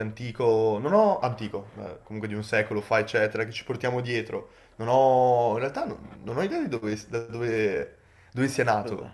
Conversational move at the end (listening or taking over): listening